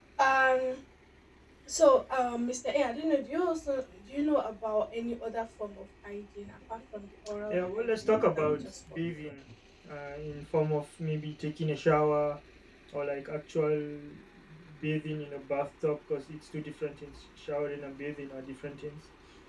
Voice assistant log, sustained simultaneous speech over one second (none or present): present